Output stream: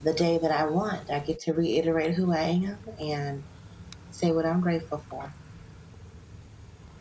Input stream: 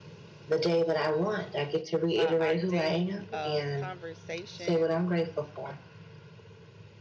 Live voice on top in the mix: No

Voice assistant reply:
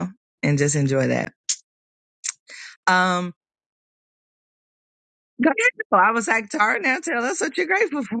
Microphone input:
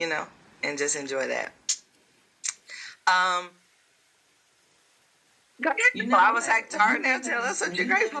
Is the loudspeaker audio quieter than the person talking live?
No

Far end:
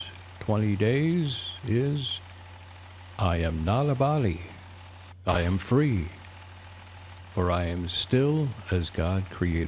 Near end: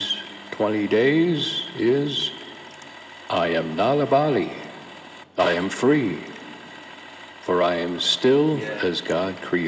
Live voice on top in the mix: No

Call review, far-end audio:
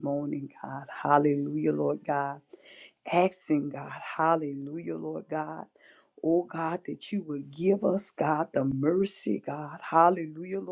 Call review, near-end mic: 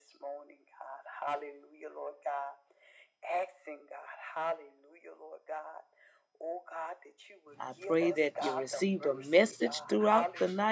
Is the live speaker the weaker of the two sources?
No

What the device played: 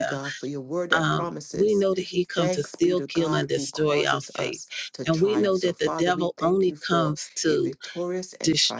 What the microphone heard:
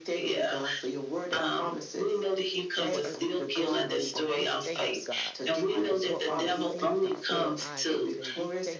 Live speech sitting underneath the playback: Yes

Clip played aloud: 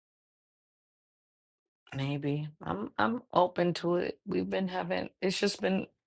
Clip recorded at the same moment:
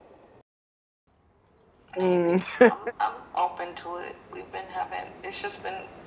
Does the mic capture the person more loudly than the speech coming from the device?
Yes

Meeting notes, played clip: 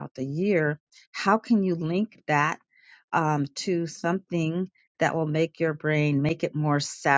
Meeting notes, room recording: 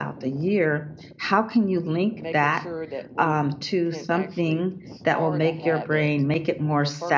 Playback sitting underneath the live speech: No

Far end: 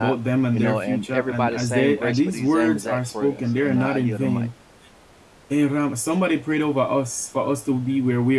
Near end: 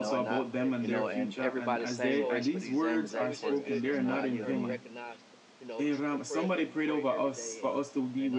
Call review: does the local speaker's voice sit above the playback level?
No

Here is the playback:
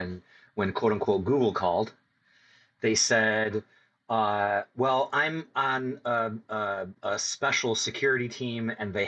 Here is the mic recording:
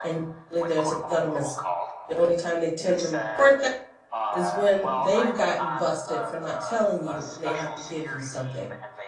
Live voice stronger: Yes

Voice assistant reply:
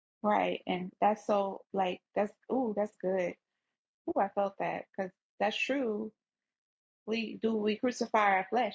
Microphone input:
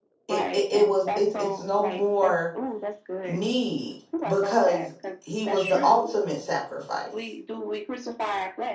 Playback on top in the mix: No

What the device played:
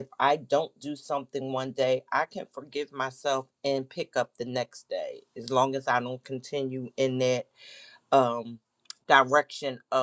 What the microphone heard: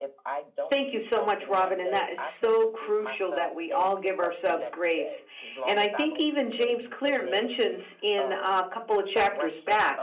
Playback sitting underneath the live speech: Yes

